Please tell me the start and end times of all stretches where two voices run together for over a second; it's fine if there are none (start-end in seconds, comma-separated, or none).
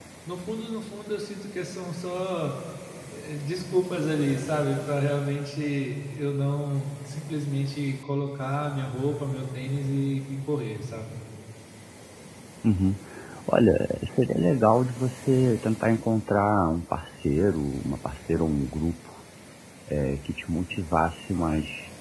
none